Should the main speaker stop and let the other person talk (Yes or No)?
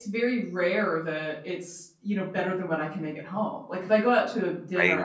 No